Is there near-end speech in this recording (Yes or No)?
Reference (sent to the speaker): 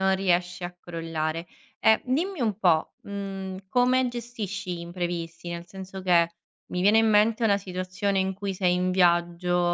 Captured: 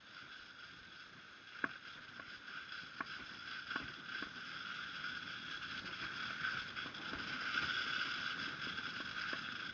No